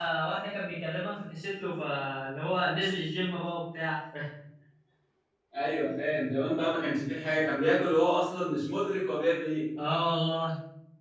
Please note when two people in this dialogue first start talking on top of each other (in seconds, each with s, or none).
none